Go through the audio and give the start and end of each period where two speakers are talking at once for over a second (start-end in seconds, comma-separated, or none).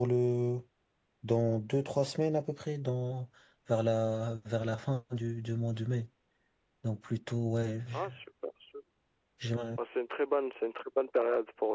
none